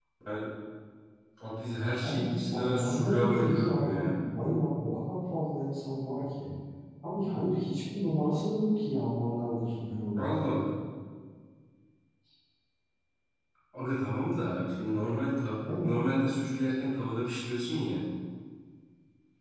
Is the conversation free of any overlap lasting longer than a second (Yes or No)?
No